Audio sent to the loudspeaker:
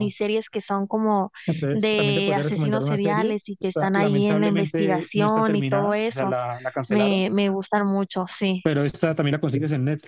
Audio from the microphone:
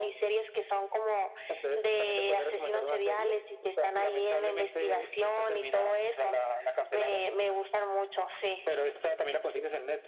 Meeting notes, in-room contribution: none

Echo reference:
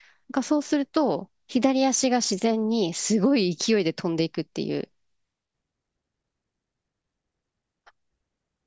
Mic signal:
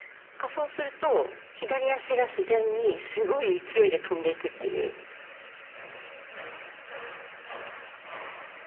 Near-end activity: none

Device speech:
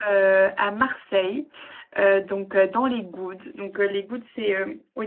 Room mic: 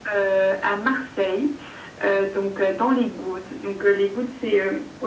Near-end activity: none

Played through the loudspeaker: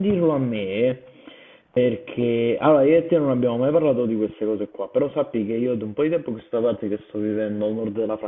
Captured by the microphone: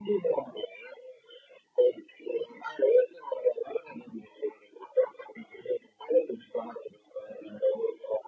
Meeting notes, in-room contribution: none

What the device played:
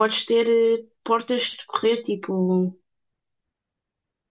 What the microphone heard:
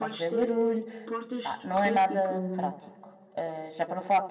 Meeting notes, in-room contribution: present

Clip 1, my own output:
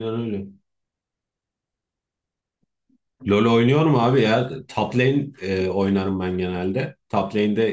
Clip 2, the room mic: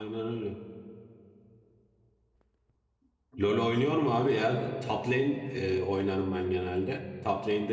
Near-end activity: present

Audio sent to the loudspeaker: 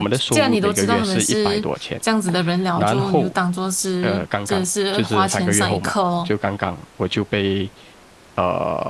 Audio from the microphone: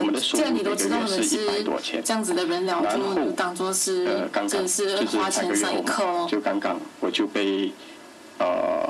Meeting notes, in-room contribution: none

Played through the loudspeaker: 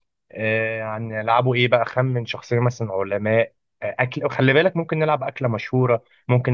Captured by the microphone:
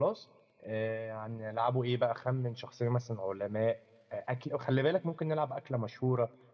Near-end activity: none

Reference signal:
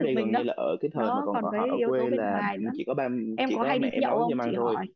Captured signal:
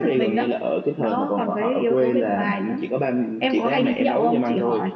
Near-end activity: none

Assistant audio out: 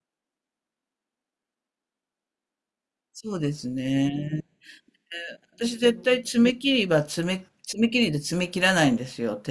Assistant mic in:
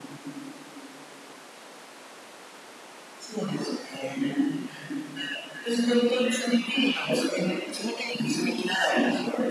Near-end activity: none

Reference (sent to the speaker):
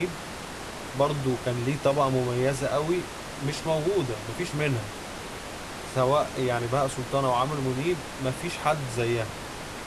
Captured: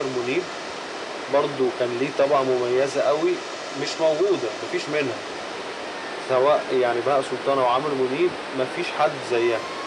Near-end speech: none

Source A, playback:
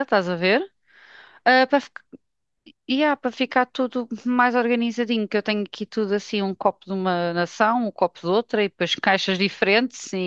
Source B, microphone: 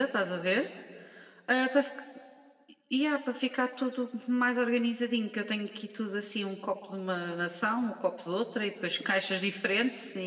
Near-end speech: none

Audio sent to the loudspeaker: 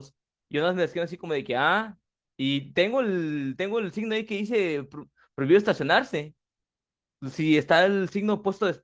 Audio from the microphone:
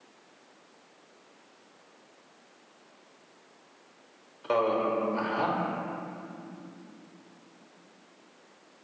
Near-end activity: present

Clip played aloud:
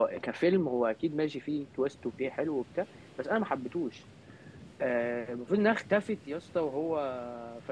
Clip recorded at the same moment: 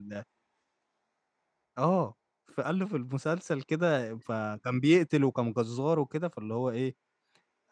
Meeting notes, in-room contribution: present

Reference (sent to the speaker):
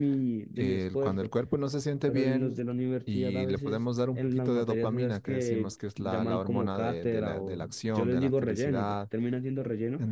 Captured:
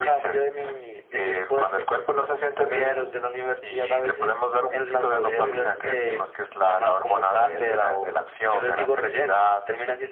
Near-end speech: present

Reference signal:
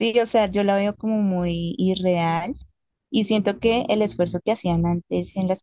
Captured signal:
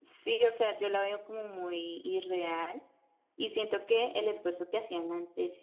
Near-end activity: none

